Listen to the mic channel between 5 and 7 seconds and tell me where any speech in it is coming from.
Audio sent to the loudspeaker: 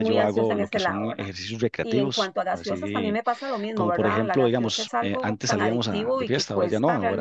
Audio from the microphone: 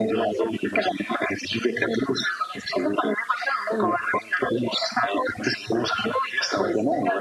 echo only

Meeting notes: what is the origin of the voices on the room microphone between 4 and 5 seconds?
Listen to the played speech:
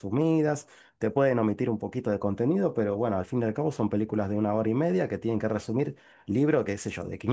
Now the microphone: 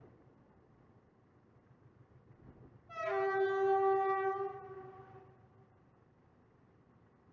neither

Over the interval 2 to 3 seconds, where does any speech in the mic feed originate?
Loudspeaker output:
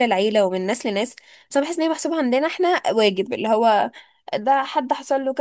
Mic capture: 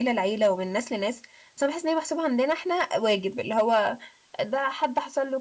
echo only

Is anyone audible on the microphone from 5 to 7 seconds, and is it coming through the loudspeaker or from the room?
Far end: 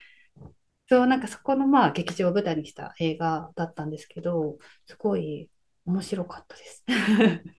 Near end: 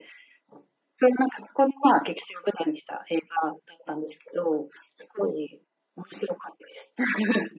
echo only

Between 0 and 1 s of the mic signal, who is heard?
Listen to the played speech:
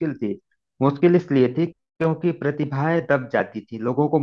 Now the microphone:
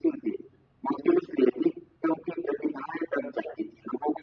echo only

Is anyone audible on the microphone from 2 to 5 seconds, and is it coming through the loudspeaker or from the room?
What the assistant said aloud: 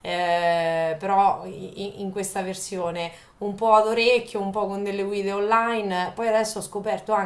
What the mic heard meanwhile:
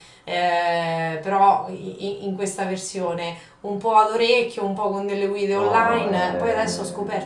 echo only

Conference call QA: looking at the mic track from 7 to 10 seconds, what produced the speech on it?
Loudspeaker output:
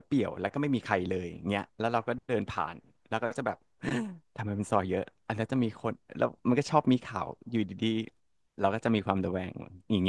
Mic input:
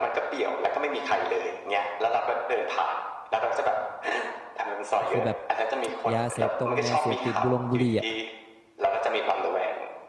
both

